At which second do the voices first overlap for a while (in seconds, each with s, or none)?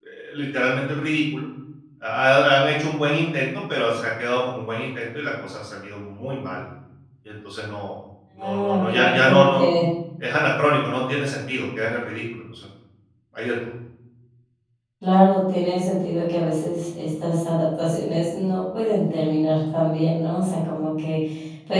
8.4 s